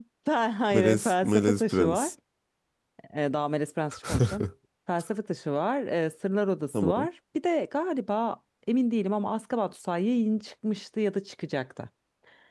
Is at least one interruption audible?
Yes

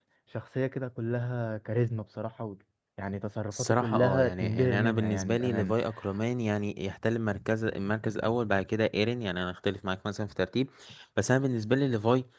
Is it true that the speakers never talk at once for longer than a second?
No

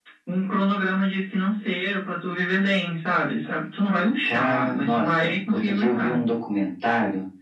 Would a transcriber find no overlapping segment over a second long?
No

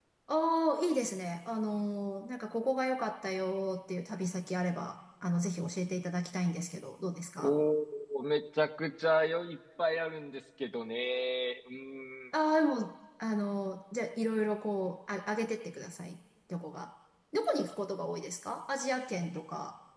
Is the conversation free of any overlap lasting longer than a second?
Yes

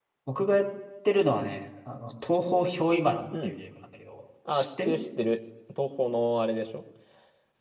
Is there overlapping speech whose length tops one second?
No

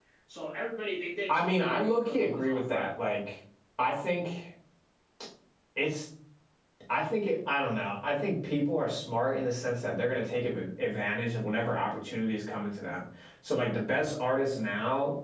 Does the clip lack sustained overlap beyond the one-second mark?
No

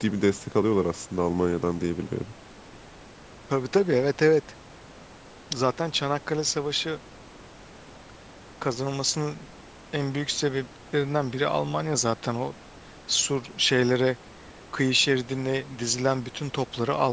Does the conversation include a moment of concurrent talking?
No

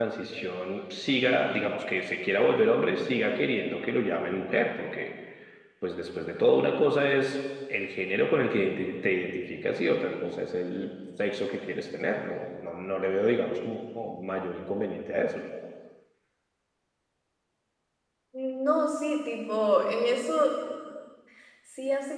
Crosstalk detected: No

